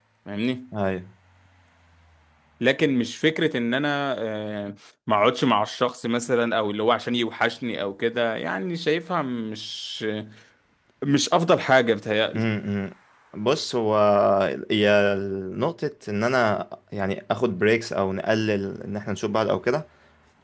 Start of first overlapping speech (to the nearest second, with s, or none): none